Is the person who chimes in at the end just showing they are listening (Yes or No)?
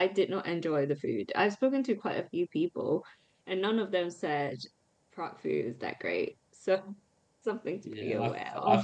No